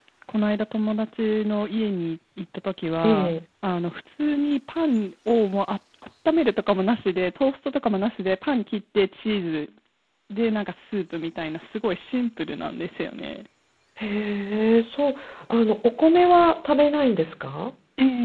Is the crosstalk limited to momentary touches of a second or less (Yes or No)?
Yes